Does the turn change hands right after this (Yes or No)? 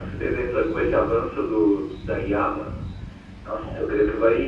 No